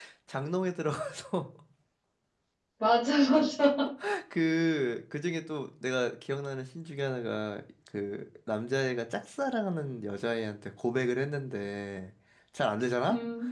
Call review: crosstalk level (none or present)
none